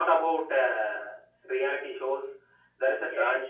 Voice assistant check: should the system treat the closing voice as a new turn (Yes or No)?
No